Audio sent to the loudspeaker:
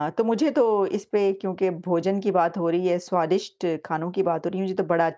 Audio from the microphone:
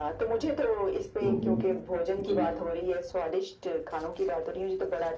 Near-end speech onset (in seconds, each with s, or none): 1.2 s